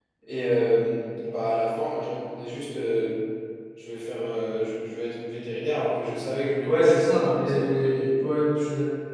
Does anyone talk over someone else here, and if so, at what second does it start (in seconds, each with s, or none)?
6.6 s